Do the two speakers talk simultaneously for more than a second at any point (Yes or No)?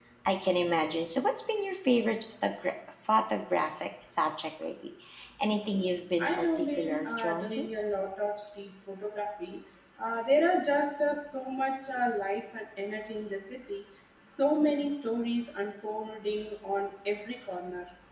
Yes